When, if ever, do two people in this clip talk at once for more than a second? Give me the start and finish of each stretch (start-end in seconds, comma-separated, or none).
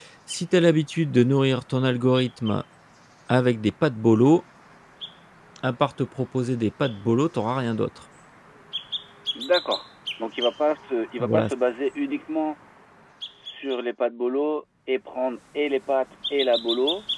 none